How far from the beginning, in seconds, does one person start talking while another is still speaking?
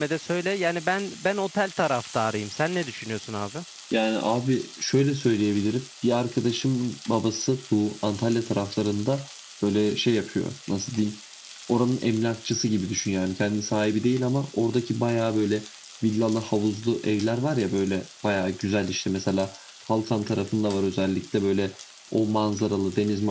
none

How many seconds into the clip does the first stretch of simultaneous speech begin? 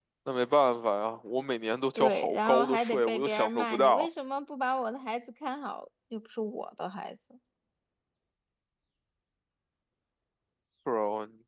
2 s

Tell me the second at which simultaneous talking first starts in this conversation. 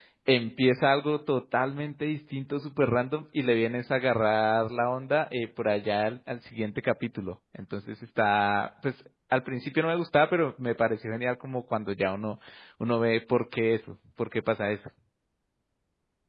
none

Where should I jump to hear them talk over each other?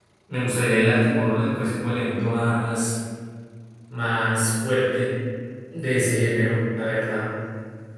none

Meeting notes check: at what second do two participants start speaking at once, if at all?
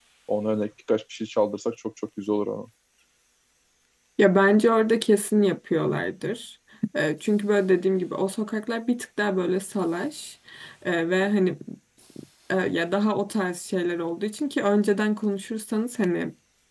none

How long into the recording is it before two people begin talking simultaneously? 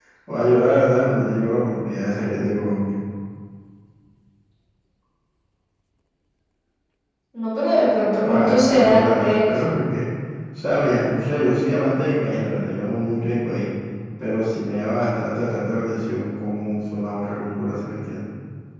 8 s

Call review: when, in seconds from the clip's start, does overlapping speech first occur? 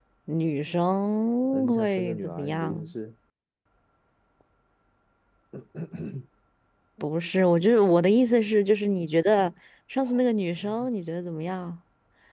2 s

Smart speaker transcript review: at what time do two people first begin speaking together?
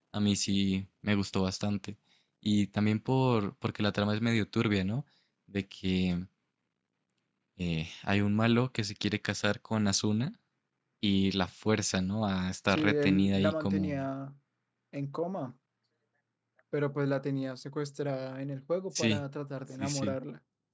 13 s

